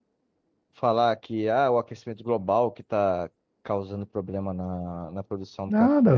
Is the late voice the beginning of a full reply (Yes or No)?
Yes